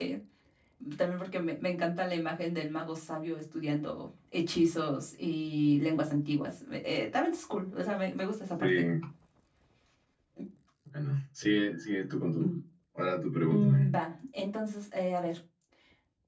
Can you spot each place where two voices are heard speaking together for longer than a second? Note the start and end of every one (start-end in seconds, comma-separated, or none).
none